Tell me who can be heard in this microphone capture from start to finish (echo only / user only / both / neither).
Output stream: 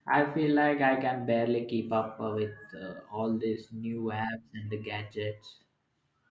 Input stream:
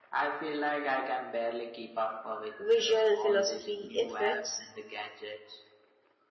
both